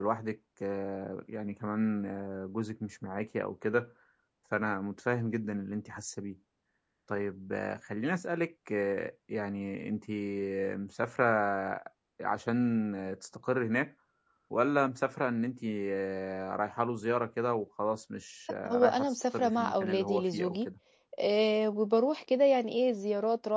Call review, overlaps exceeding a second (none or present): present